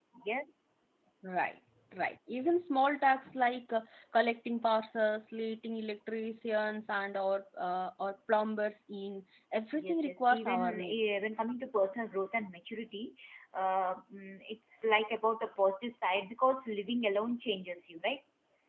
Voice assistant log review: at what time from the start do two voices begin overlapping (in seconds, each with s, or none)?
9.7 s